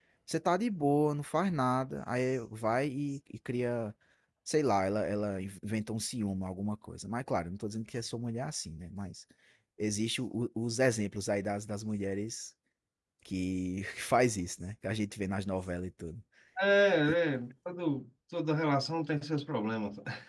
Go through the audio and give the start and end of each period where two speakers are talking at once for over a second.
none

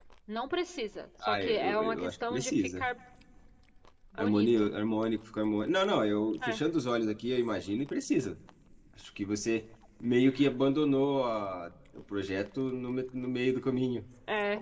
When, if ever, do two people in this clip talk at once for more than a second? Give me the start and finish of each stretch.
1.2-2.8

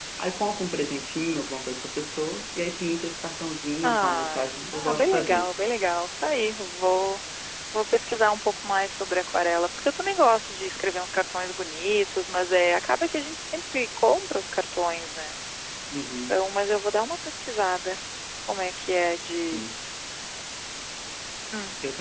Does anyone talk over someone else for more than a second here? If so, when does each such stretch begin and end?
3.8-5.5

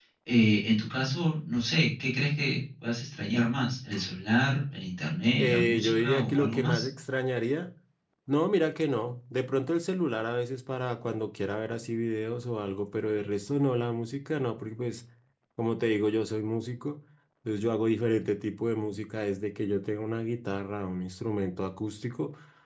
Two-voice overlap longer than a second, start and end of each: 5.4-6.9

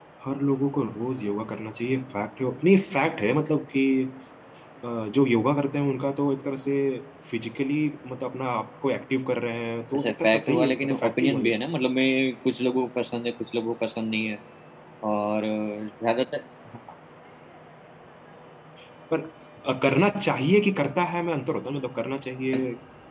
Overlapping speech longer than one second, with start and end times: 9.9-11.4

